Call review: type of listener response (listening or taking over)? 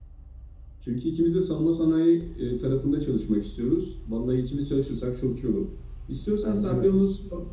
listening